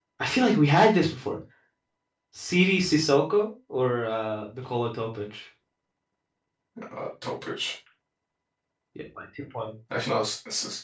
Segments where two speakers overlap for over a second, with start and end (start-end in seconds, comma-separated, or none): none